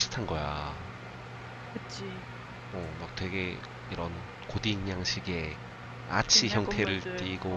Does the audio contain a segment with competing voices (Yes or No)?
Yes